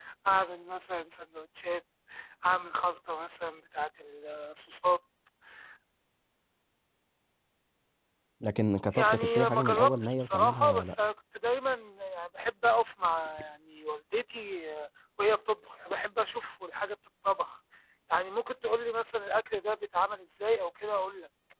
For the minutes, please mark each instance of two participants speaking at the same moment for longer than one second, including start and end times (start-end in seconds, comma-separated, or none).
8.9-10.9